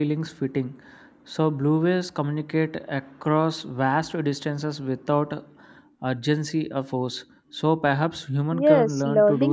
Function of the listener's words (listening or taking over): taking over